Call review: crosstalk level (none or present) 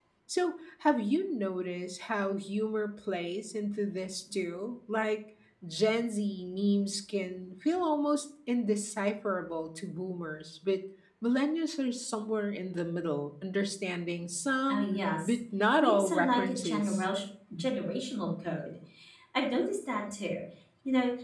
present